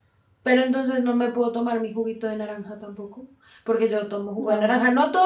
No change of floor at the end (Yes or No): Yes